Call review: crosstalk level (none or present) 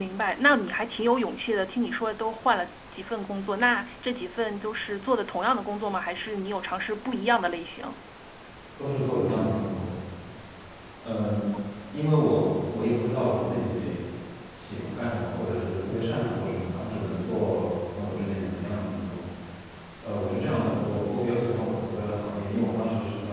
none